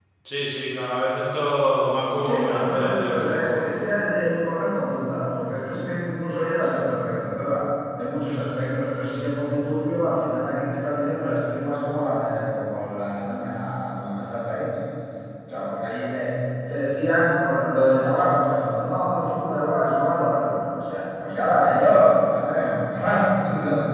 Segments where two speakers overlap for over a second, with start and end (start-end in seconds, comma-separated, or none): 2.2-3.6